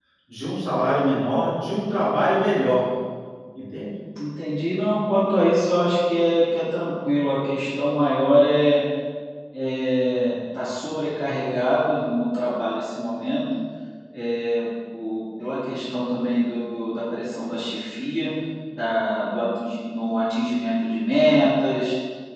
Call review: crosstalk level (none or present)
none